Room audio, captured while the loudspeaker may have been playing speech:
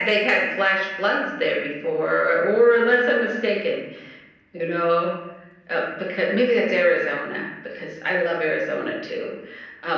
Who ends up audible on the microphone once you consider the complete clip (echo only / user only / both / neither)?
echo only